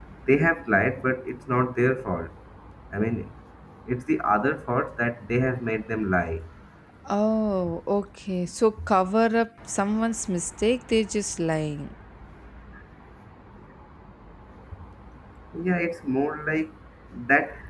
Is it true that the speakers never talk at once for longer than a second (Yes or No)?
Yes